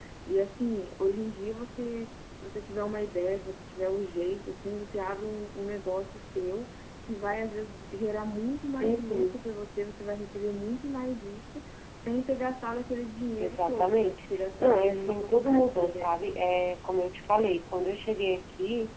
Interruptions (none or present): present